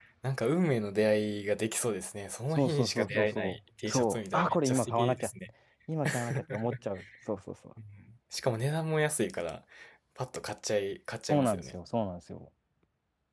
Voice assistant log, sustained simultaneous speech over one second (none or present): present